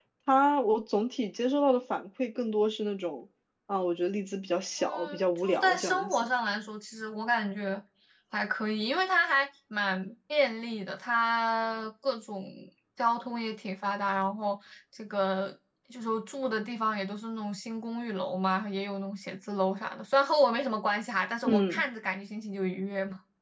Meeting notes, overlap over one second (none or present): present